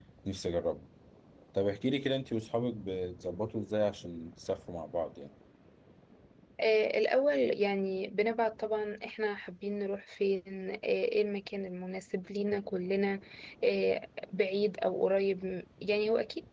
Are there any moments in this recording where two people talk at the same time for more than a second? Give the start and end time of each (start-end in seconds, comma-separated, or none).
none